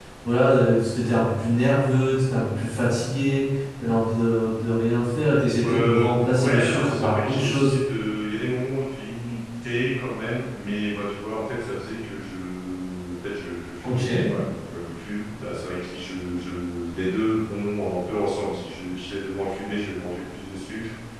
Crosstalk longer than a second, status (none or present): present